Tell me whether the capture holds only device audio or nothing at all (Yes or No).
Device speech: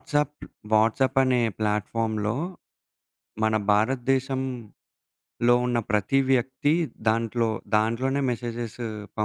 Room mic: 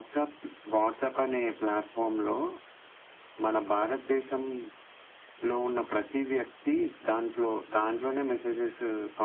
Yes